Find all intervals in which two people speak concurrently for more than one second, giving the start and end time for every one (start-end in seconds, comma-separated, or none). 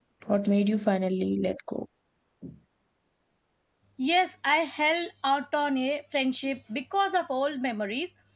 none